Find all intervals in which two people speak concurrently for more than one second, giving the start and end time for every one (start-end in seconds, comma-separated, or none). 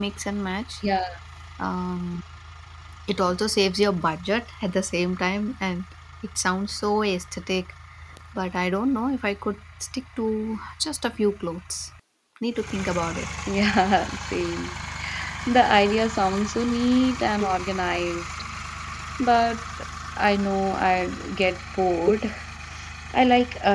none